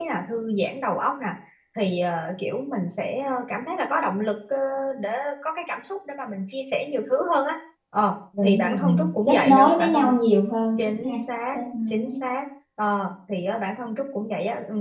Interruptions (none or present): present